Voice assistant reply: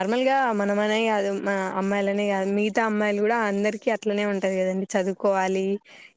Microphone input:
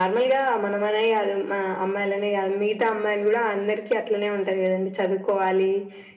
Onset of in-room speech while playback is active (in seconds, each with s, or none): none